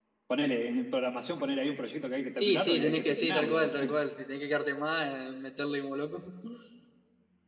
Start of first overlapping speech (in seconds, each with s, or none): 2.4 s